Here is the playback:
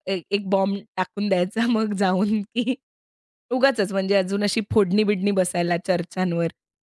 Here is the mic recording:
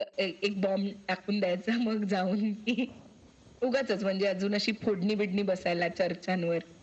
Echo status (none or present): present